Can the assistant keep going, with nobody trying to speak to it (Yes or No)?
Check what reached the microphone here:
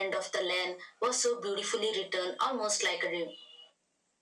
Yes